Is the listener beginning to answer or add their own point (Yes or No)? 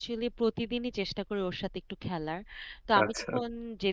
No